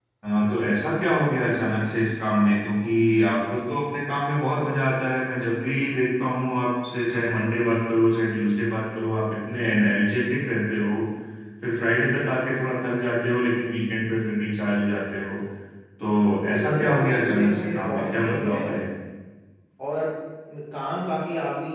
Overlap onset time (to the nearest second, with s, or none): 17 s